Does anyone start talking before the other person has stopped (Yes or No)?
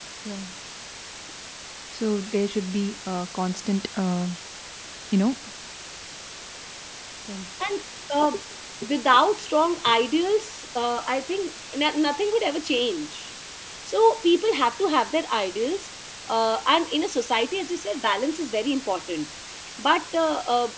No